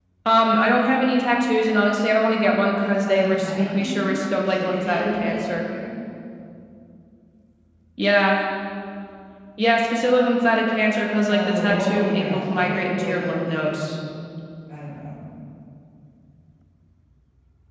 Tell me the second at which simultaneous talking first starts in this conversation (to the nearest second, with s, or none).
3 s